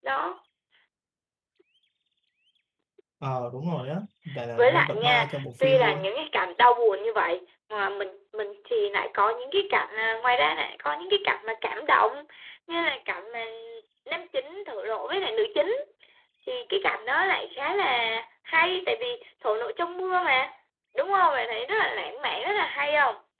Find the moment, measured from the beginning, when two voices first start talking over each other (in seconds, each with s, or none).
4.6 s